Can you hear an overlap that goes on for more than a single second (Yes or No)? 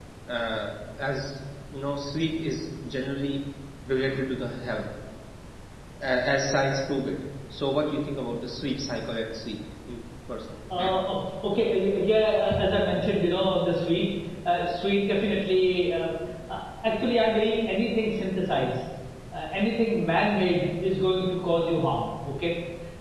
No